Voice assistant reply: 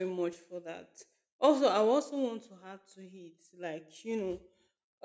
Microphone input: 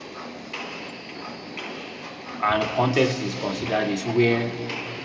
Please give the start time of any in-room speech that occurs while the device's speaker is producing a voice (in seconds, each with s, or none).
2.4 s